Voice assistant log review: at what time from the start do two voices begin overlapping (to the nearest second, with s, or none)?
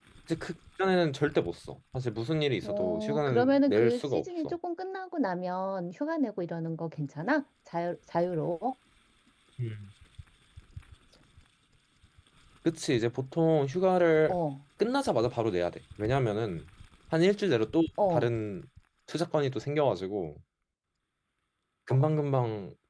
3 s